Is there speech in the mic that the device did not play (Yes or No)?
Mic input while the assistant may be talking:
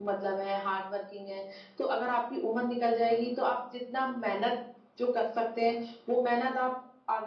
Yes